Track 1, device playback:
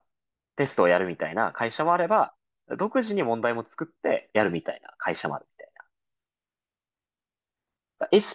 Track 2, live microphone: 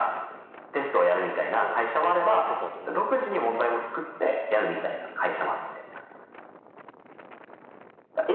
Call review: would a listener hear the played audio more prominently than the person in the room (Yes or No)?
Yes